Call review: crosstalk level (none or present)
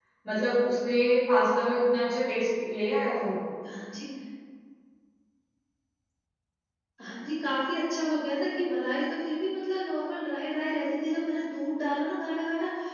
none